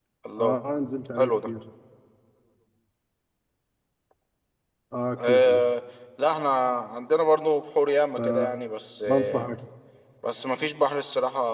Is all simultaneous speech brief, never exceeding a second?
Yes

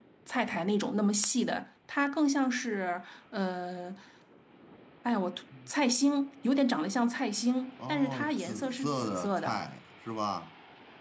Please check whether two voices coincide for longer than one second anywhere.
Yes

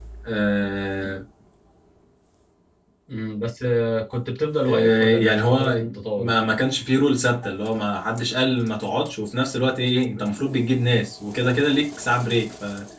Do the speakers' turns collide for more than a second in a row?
Yes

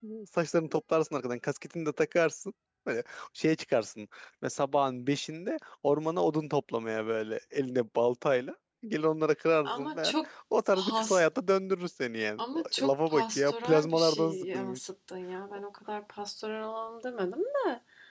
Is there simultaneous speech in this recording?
Yes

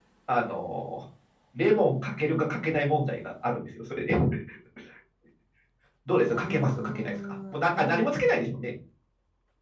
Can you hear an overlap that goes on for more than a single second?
Yes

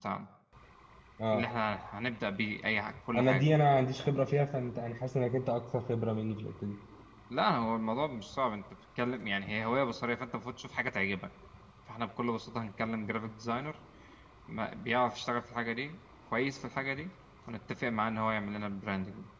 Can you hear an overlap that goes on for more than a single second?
No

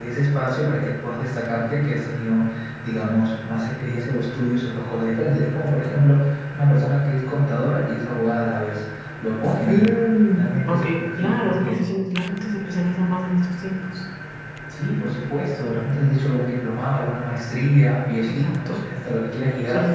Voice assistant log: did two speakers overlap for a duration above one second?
Yes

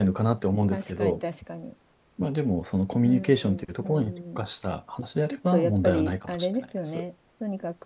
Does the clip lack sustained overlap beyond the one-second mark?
No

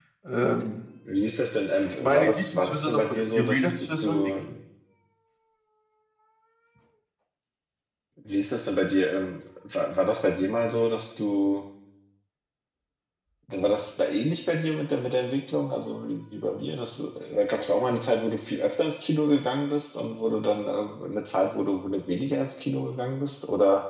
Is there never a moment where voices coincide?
No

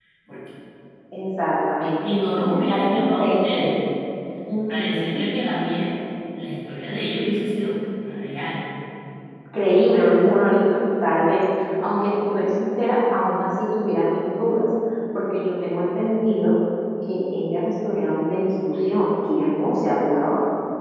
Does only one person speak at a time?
No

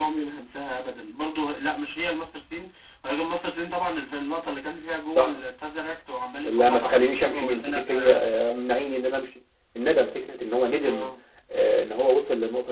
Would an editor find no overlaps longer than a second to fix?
No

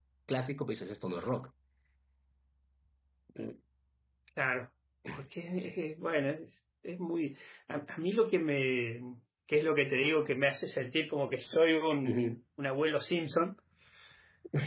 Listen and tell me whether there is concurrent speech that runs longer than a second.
No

